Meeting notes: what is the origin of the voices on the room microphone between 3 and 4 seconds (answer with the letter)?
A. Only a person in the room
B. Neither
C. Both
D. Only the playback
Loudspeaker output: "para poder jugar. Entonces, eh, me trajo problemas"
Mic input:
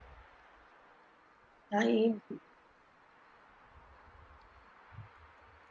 B